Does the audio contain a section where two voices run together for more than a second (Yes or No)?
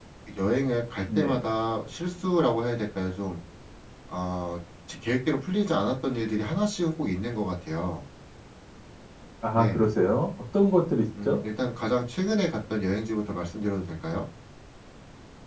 No